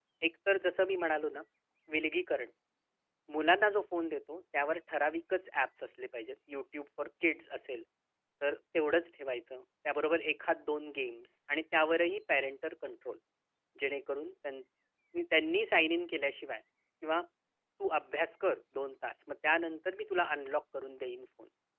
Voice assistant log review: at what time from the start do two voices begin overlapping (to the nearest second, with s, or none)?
none